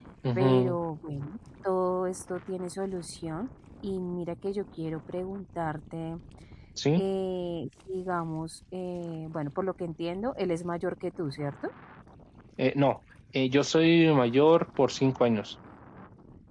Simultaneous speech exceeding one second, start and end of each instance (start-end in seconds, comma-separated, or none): none